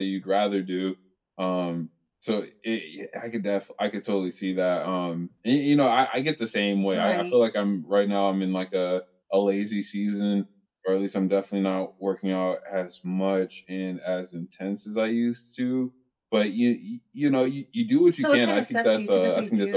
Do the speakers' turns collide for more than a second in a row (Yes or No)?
Yes